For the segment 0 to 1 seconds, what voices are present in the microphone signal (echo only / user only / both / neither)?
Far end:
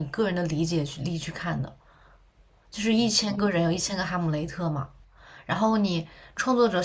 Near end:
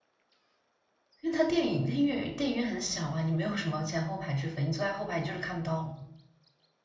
neither